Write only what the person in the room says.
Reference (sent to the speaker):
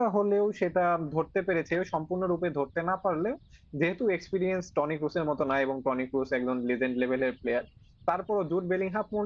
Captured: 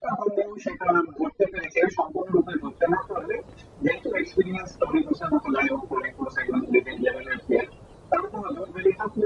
none

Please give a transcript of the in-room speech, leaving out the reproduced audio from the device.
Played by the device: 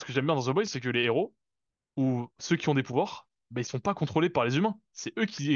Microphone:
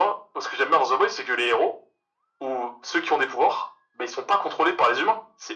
none

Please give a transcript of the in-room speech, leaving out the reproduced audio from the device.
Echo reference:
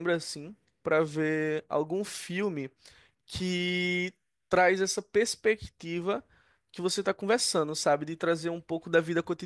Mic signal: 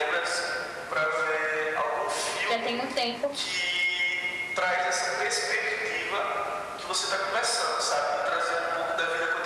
Já tem um tempo,

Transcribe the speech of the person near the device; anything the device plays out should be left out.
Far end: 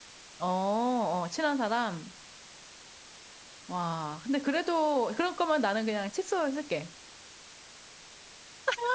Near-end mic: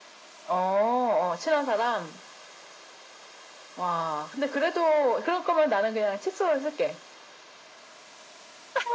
none

